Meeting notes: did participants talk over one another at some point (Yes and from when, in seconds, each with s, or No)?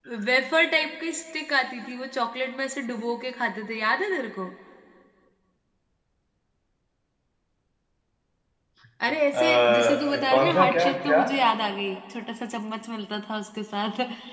Yes, from 9.3 s